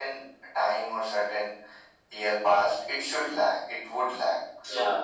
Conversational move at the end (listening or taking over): taking over